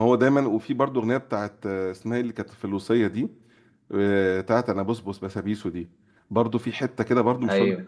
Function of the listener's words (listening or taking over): listening